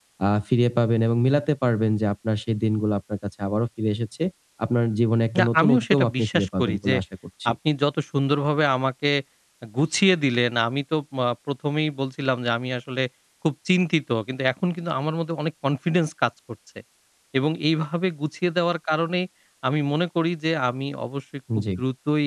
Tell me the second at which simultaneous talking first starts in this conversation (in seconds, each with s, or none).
5.4 s